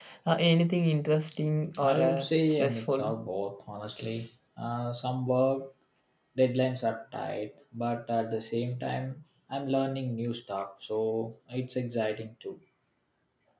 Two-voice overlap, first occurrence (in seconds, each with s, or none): 1.7 s